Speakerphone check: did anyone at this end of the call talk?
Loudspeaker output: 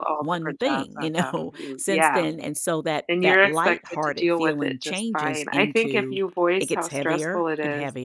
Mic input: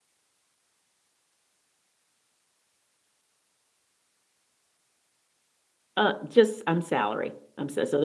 Yes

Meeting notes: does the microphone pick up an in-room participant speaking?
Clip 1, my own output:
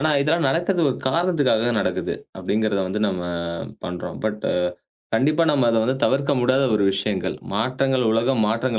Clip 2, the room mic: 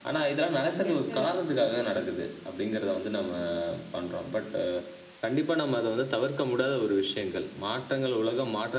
Yes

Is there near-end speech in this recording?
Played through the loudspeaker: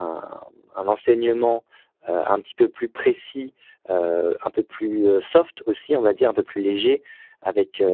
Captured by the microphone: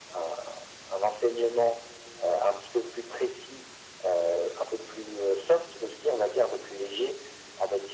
No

